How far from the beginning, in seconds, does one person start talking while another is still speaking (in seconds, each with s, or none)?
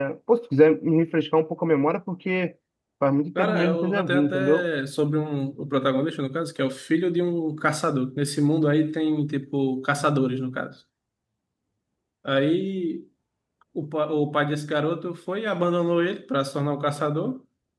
3.4 s